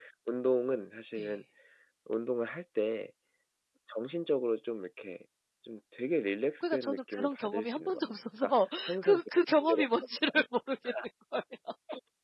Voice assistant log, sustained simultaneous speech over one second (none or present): present